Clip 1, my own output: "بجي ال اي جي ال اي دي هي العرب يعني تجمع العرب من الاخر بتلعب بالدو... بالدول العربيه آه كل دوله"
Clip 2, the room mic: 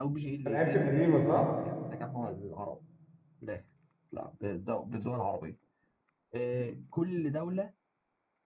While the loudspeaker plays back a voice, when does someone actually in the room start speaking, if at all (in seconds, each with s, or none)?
0.5 s